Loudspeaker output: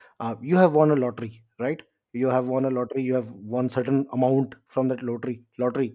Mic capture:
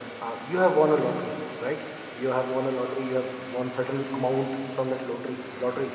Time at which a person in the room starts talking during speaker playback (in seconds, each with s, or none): none